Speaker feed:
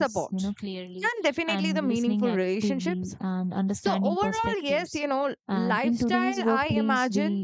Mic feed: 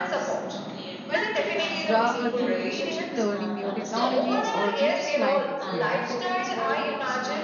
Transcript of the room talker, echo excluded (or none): Whether it is ra- uh, through reading, learning new technologies, or gaining life experiences.